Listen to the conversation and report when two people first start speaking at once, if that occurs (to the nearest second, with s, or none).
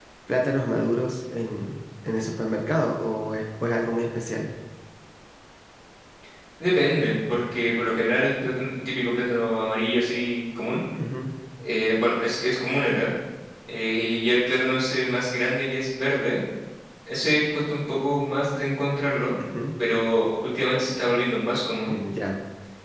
none